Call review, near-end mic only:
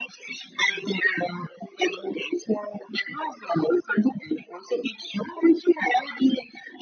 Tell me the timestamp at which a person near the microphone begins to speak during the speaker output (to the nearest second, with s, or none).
none